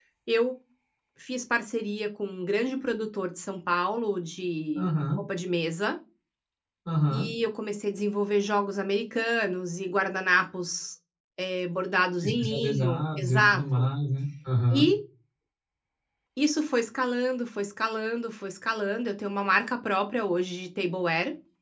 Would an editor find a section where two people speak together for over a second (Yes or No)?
Yes